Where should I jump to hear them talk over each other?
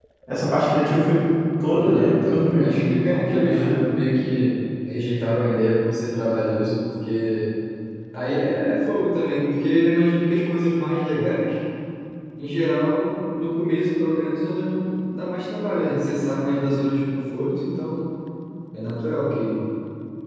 1.7 s

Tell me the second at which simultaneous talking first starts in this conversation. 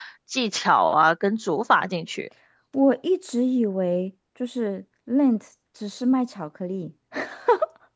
none

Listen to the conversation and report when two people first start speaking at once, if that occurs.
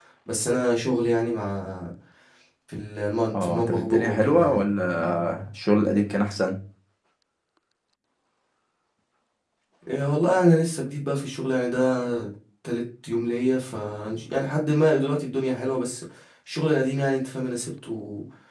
3.3 s

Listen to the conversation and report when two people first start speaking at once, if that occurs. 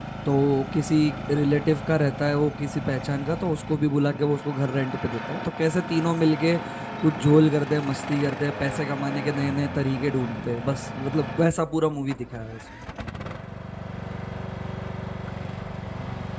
none

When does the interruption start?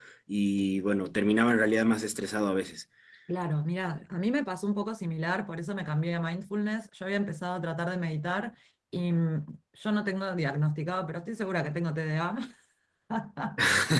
none

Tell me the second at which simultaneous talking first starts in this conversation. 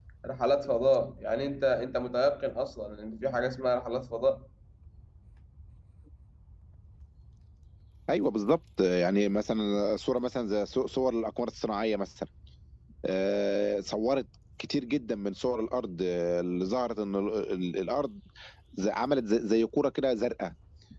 none

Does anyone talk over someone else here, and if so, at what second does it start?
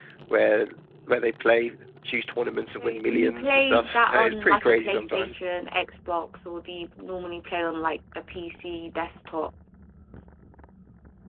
2.7 s

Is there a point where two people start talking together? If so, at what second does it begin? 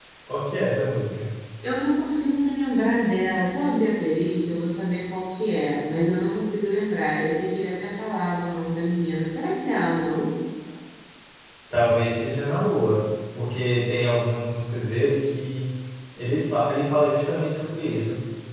none

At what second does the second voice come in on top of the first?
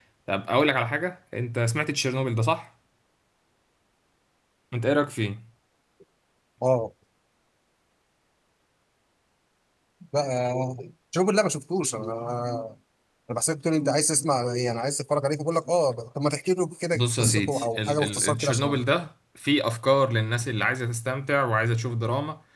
16.9 s

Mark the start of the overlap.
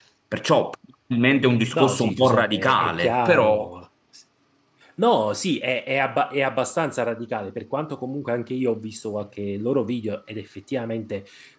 1.7 s

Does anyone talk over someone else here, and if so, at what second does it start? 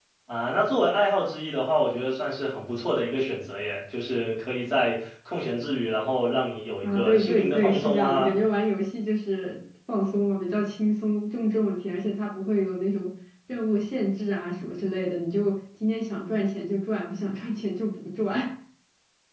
6.8 s

